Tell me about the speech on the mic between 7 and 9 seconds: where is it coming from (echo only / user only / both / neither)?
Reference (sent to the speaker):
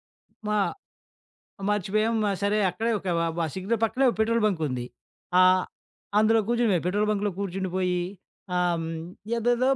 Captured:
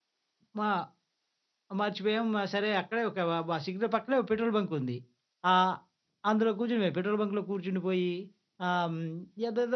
echo only